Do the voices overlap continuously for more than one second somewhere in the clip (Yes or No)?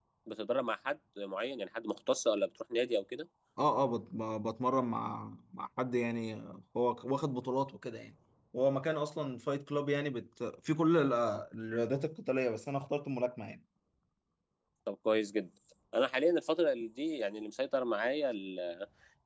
No